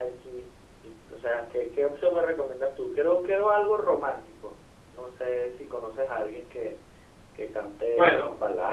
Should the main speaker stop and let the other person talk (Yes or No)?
Yes